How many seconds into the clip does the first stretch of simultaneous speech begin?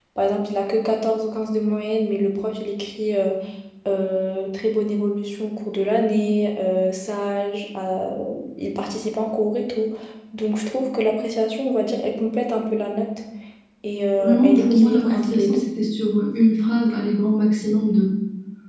14 s

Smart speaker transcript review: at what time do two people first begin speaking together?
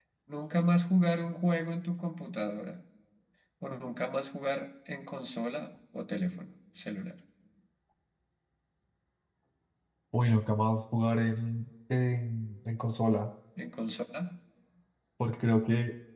none

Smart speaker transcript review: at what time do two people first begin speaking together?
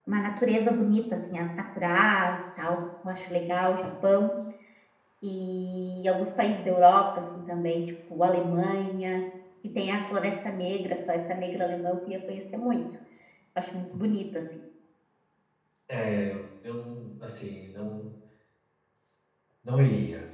none

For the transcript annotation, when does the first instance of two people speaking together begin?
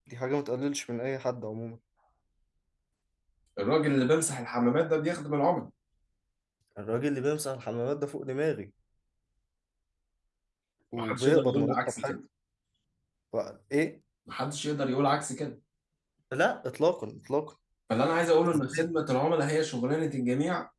11 s

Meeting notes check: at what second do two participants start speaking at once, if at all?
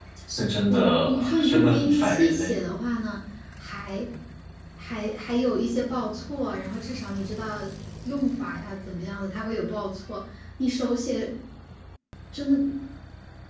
1 s

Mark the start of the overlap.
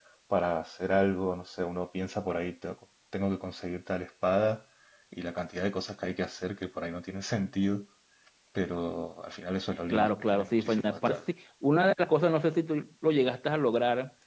10 s

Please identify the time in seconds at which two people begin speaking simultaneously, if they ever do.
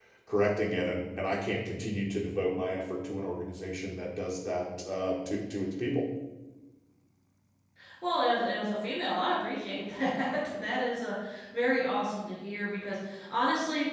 none

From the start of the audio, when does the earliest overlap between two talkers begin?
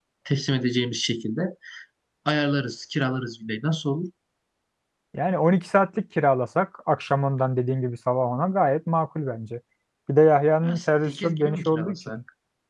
11 s

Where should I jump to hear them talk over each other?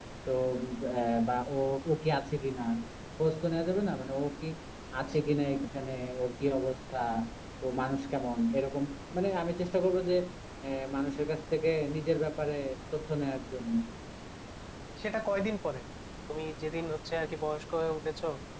none

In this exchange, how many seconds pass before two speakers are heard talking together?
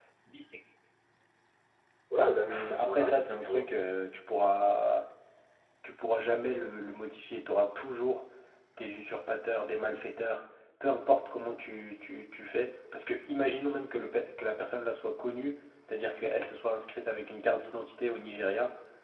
2 s

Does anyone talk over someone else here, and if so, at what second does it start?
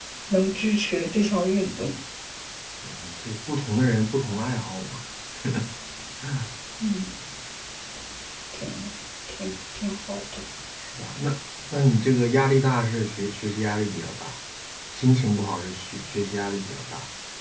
none

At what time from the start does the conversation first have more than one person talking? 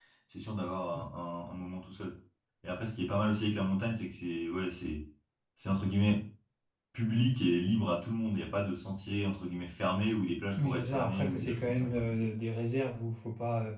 11 s

